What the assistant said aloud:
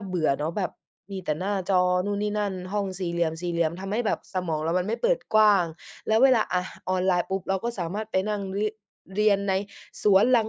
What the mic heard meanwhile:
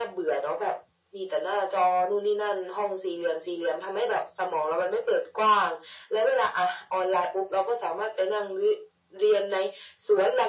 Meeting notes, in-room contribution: none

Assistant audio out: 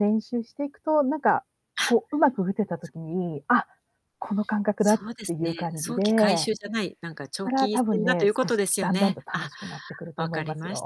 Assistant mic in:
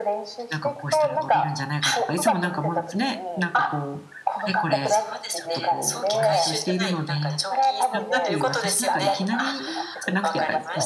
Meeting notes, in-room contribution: present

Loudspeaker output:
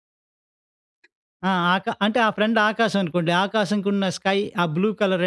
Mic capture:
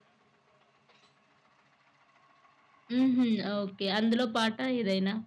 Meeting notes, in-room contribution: present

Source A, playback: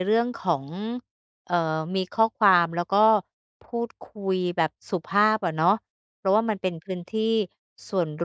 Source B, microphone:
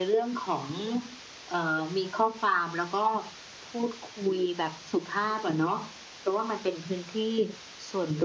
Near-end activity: none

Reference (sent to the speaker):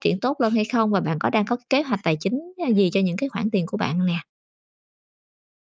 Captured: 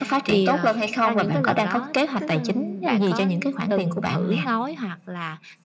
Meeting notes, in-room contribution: present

